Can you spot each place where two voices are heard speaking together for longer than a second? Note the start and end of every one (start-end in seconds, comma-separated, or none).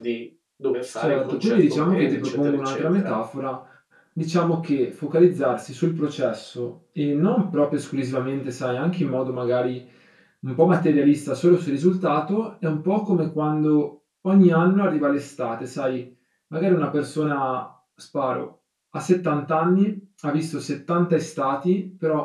1.0-3.1